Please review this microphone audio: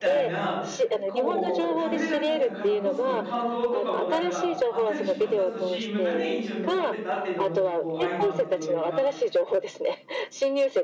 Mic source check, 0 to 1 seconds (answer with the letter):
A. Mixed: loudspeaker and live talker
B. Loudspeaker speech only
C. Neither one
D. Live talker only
A